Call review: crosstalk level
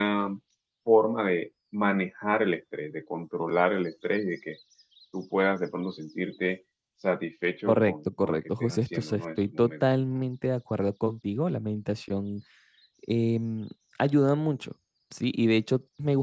present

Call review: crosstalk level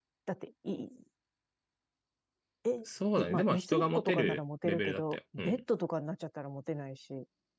present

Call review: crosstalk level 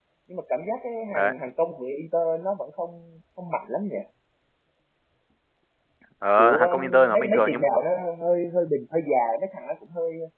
present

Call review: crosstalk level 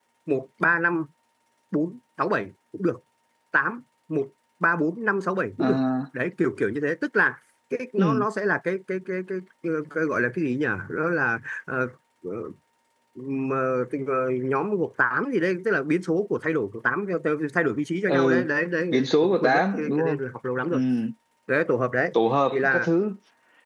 present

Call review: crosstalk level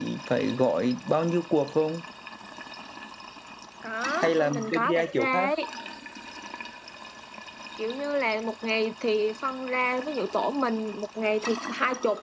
present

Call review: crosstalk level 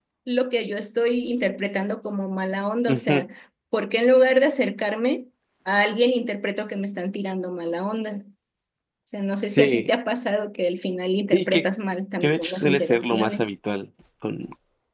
present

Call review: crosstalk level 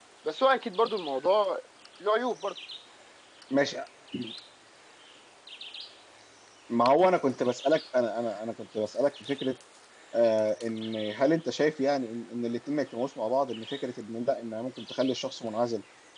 none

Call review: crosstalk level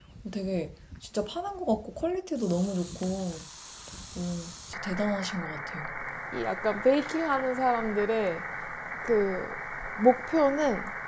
none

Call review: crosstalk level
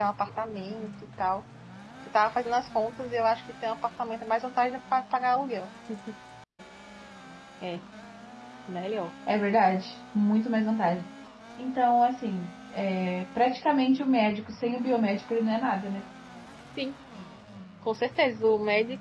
none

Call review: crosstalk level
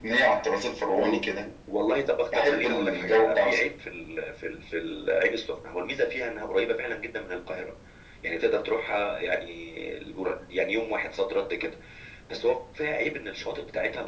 present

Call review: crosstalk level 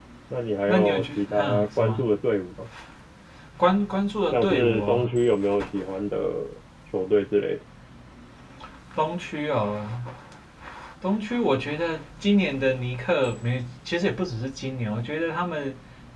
present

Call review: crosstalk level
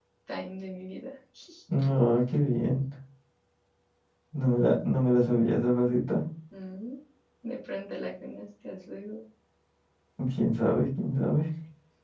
none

